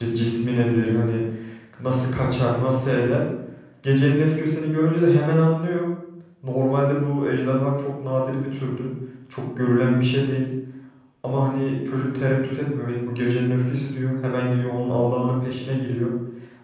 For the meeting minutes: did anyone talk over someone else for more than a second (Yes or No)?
No